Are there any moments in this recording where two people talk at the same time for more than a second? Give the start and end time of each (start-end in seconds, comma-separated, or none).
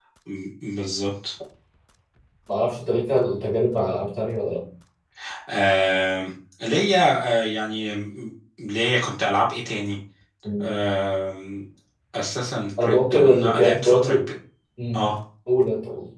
12.8-14.3